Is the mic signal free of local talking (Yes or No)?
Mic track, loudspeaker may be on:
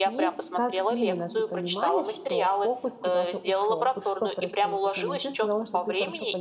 No